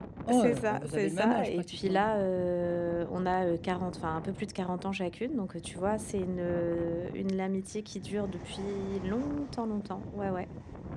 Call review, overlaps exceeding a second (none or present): present